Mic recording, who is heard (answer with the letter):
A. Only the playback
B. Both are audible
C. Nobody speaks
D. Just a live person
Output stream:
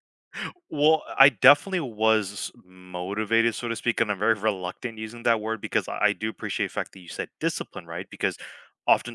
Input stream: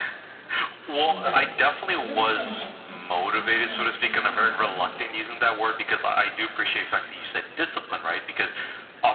B